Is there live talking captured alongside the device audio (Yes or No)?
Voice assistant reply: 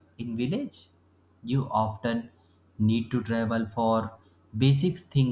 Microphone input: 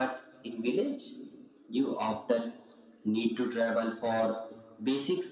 No